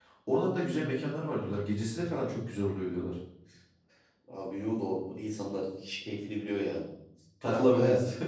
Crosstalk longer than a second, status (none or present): none